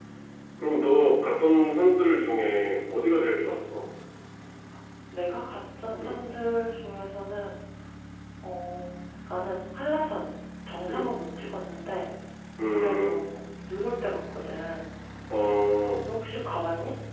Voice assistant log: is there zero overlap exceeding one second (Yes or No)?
Yes